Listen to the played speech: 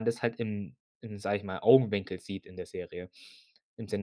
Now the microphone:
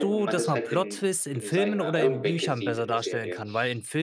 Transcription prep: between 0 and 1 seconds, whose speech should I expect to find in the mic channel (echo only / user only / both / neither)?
both